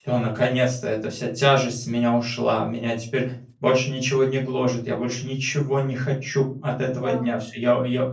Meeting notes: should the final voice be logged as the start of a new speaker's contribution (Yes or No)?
No